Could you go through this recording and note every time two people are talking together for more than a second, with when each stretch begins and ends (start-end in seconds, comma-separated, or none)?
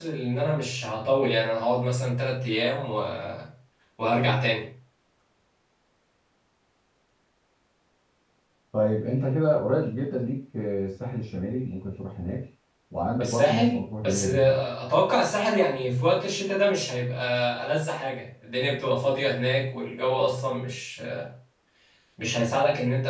13.2-14.6